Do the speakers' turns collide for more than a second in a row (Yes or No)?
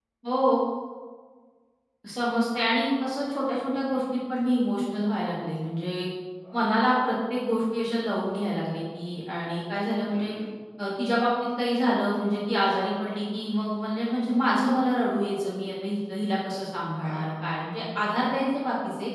No